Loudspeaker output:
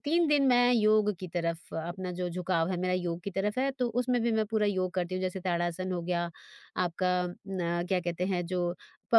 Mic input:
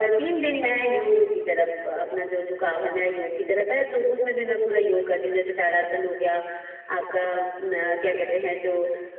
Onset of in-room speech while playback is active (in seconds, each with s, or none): none